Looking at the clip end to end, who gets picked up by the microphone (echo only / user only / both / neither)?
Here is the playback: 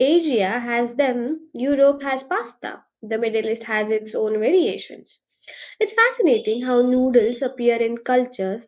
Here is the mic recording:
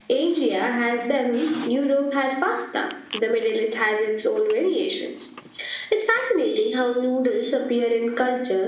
echo only